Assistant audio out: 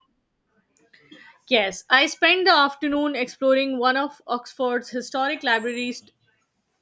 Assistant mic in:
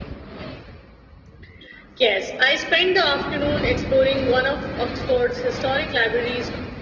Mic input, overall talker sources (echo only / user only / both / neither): echo only